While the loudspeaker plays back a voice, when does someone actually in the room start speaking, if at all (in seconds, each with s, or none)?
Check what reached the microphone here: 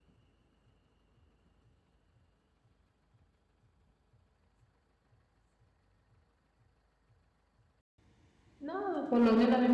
8.6 s